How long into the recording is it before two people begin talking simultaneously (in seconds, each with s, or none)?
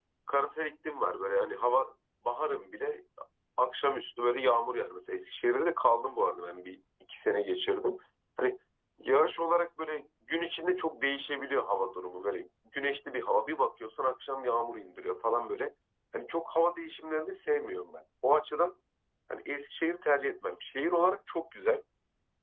none